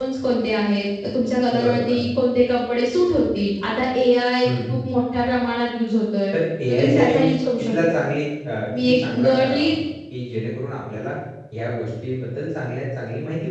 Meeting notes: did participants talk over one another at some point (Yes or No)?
Yes